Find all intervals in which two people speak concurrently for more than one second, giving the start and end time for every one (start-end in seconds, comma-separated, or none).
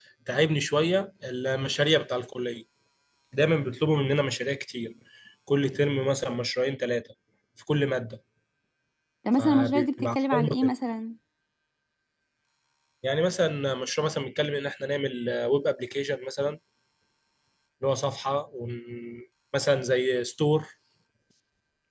9.4-10.7